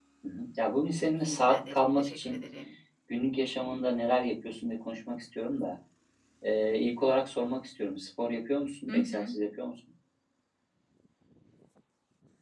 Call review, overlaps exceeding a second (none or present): present